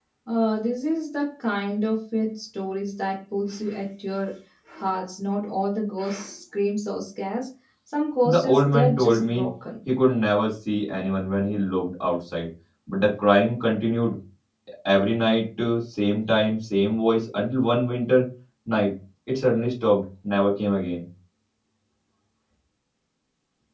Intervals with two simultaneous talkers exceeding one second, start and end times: 8.2-9.5

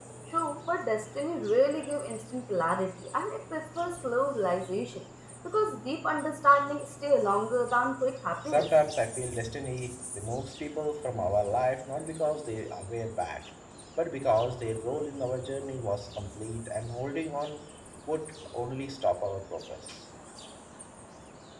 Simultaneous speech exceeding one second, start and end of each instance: none

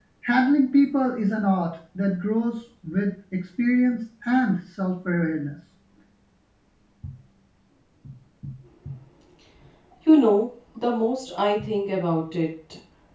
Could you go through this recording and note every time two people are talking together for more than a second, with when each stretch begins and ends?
none

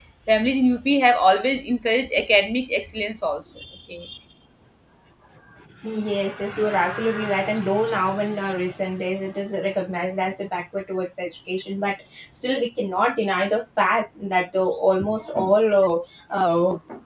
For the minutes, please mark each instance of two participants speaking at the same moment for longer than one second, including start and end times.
none

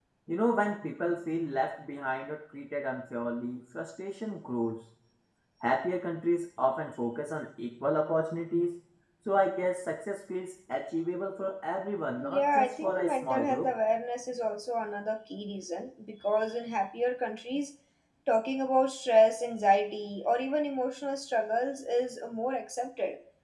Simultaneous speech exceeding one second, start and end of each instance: 12.3-13.7

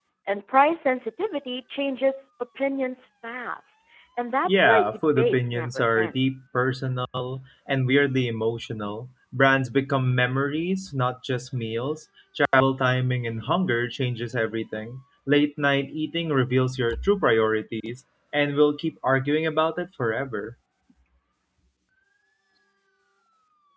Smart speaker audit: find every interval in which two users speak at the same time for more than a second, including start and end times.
4.4-6.2

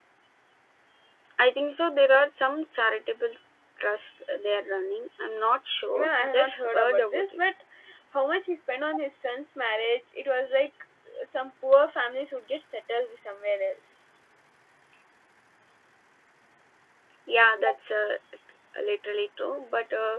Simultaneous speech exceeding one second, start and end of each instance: 5.9-7.2

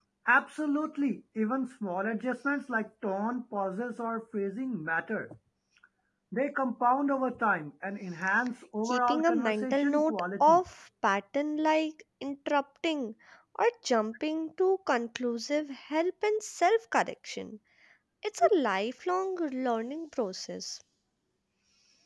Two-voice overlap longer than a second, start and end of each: 8.8-10.6

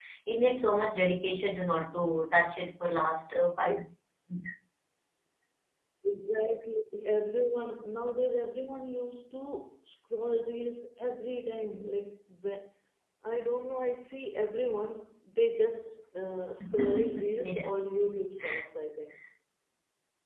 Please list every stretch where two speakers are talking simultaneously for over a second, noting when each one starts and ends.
16.6-17.8

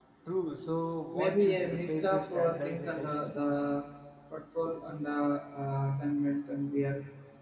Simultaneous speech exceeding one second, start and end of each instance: 1.1-3.1

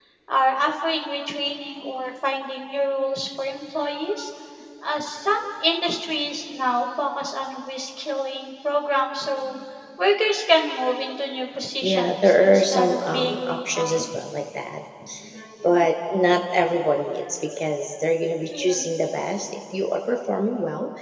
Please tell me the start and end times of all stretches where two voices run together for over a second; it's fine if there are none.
11.8-14.0

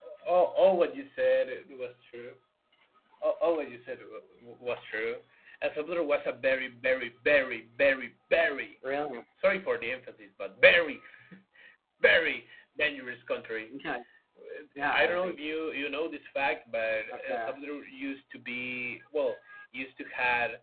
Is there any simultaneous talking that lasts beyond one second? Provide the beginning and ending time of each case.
none

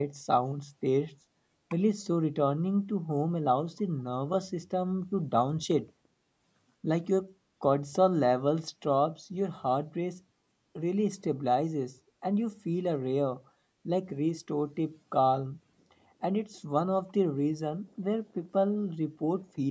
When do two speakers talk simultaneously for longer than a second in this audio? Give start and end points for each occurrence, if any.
none

